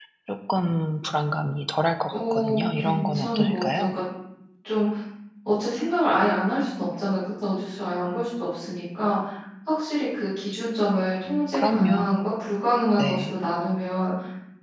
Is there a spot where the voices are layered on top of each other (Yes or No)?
Yes